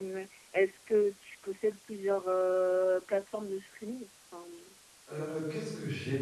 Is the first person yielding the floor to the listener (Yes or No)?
Yes